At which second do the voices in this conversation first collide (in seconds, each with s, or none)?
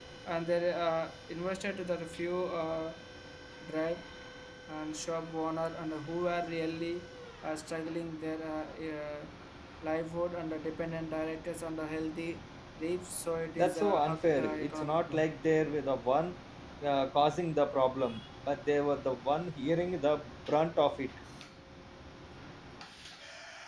13.6 s